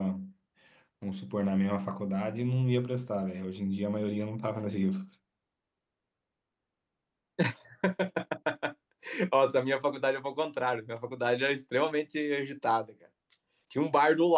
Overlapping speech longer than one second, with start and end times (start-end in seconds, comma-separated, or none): none